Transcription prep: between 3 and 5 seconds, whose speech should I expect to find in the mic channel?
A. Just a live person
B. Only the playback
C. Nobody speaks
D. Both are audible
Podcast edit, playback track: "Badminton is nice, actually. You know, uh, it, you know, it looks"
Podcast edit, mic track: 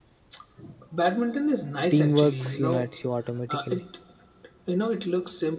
D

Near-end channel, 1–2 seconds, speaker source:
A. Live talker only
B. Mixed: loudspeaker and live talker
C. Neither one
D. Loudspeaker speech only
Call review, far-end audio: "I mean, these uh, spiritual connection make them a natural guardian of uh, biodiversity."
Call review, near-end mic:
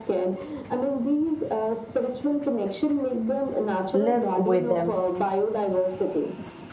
D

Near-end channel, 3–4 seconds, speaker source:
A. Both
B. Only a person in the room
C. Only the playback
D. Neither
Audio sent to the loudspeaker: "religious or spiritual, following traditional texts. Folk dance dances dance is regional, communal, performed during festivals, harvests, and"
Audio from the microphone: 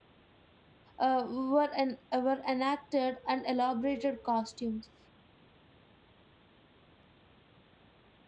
B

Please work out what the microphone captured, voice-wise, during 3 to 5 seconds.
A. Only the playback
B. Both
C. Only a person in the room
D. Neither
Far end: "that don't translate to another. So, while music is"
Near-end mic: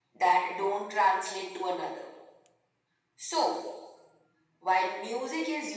A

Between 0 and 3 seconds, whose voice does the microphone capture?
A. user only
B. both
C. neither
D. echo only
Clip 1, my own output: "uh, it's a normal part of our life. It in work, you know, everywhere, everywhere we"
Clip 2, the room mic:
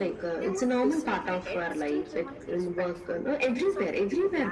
B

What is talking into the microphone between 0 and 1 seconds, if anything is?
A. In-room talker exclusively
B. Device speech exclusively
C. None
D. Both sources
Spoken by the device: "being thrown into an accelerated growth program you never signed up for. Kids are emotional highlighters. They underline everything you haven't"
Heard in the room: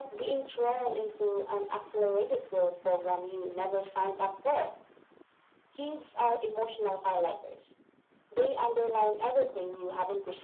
B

